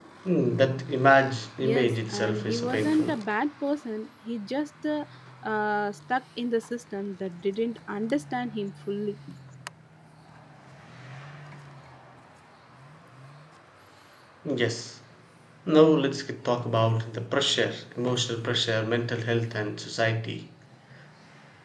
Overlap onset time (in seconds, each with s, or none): 1.6 s